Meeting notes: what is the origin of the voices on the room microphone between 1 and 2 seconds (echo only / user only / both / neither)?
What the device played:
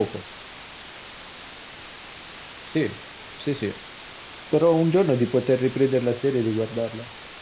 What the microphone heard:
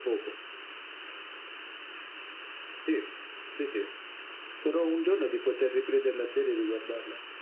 neither